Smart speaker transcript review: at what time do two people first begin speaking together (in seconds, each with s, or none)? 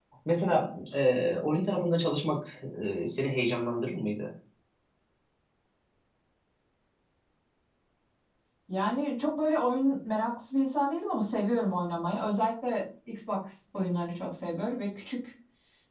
none